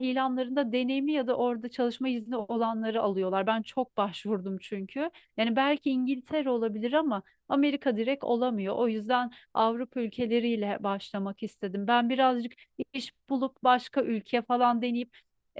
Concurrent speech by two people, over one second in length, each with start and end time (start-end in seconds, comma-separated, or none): none